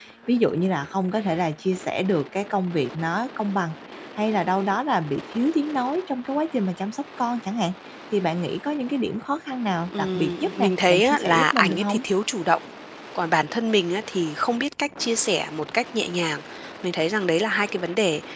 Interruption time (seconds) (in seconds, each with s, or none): 9.9 s